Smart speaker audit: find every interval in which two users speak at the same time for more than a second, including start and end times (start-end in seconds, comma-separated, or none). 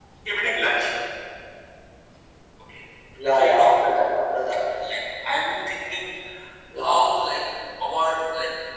none